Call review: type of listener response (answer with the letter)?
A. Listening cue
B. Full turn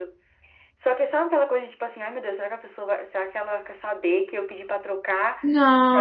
A